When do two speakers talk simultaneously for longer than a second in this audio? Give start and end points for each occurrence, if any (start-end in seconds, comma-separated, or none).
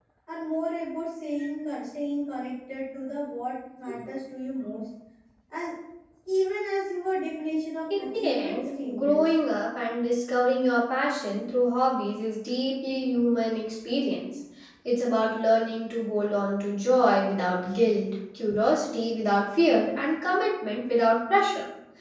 7.9-9.2